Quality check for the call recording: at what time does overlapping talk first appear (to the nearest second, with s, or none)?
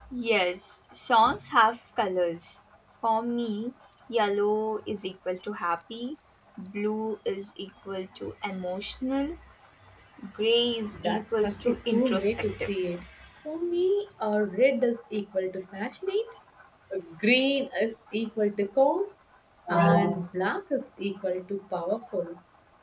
11 s